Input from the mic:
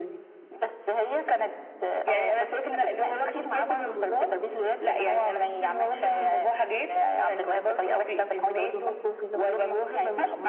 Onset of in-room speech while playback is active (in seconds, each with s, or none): none